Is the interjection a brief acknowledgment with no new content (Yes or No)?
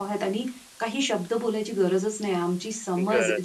Yes